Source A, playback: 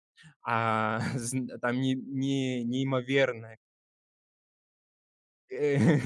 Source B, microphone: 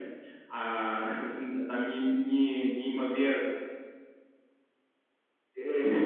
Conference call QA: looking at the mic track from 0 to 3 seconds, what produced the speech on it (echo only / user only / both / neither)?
echo only